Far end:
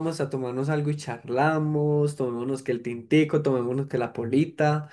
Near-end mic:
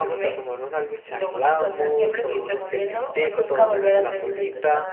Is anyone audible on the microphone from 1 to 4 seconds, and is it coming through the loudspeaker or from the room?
both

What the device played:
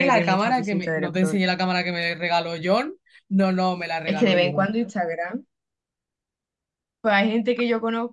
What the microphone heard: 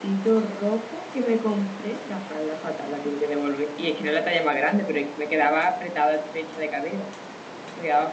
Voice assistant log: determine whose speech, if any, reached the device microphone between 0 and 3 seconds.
user only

